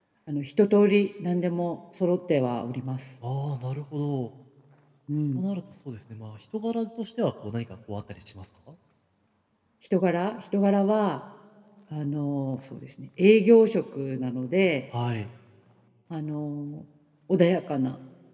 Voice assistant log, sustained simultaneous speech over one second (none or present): none